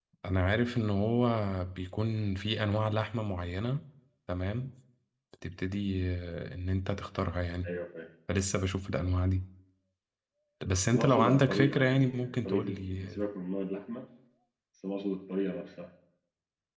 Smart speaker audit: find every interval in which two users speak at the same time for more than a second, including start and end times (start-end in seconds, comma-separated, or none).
10.9-13.2